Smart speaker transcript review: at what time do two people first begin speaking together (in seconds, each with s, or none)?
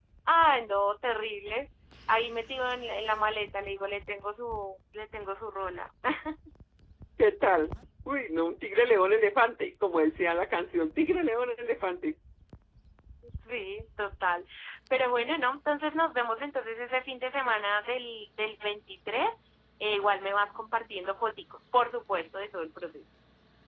none